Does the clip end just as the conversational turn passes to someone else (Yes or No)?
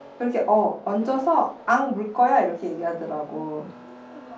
Yes